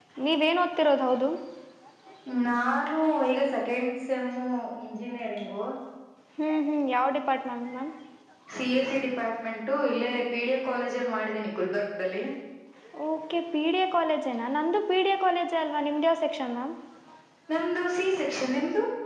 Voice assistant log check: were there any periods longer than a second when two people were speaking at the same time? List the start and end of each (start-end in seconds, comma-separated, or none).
none